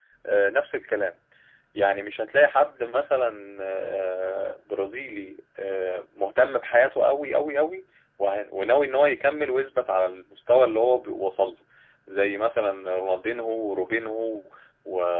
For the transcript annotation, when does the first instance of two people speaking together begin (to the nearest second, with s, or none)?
none